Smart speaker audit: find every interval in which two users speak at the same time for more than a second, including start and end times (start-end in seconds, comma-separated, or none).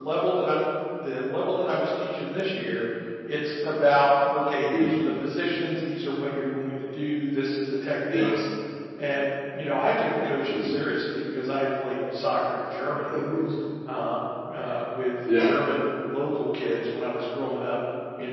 none